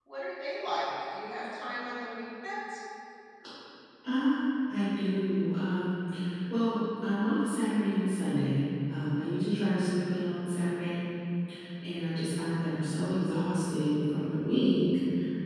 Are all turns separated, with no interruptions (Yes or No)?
Yes